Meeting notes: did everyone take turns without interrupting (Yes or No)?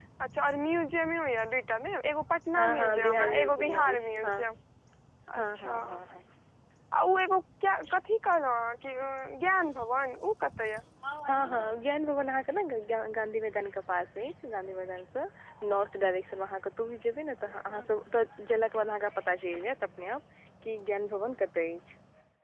No